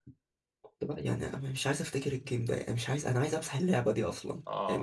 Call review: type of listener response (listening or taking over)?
taking over